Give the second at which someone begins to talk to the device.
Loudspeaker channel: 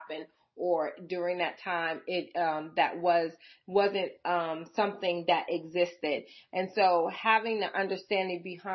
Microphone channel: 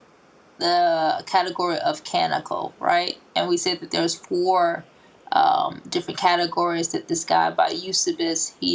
0.6 s

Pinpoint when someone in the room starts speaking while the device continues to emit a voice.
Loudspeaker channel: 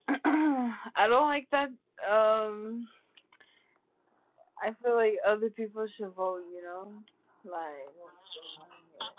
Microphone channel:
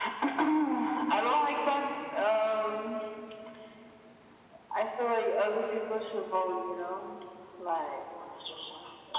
none

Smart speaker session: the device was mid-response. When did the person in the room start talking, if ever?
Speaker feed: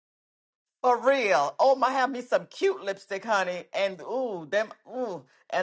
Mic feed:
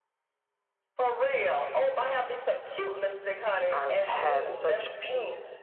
3.7 s

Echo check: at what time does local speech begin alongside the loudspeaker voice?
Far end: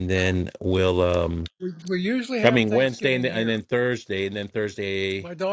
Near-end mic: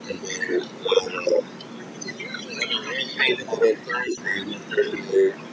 none

